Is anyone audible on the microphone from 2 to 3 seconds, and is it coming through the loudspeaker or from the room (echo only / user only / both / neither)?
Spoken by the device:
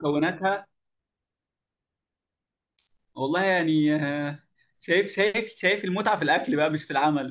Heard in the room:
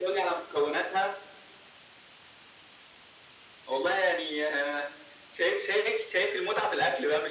neither